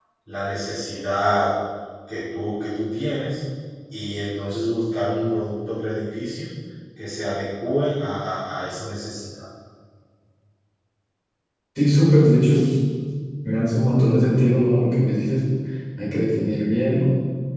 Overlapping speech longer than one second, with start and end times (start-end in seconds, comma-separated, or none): none